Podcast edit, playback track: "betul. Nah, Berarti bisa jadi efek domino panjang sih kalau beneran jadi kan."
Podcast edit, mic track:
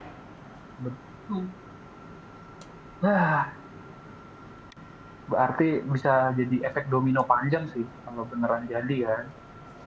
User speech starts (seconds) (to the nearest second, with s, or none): none